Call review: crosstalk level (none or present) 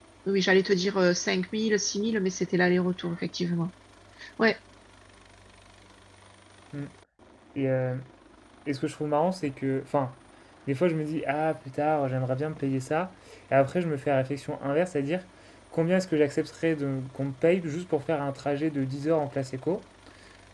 none